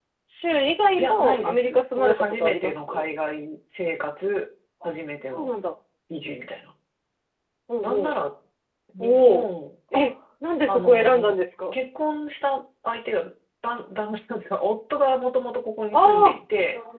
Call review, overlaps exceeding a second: present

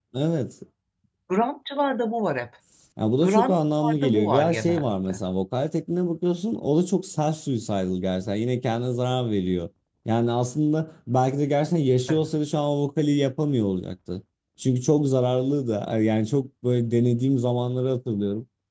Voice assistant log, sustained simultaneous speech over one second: present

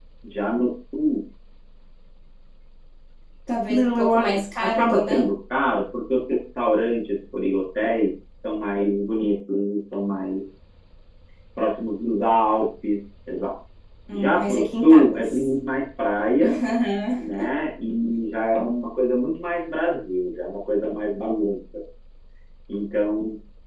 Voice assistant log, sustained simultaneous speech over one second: present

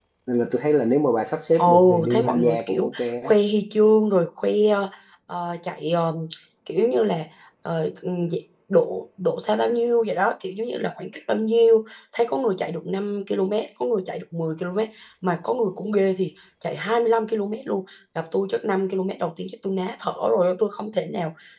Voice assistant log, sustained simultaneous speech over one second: present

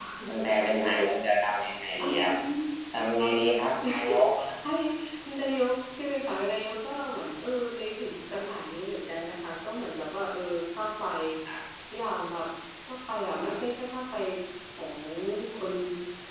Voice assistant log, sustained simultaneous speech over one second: none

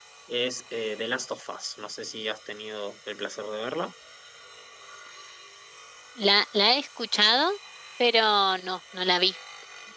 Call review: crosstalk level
none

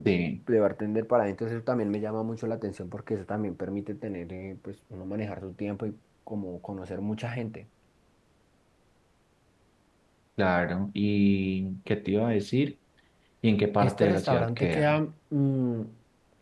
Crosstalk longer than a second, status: present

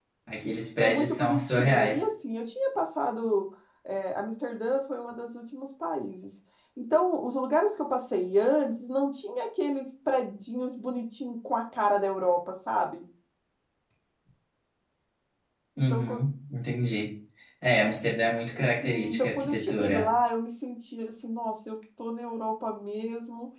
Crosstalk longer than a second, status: present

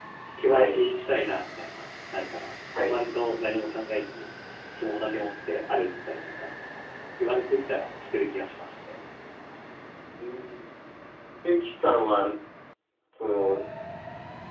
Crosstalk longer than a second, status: none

